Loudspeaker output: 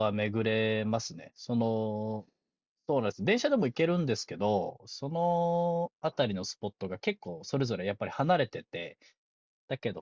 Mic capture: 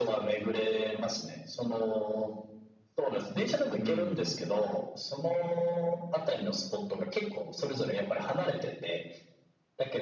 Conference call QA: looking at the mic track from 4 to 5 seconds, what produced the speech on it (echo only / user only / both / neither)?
both